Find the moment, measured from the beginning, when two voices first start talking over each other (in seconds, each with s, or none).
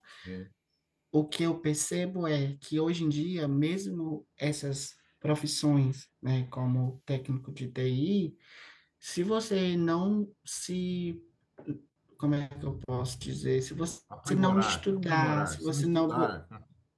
14.1 s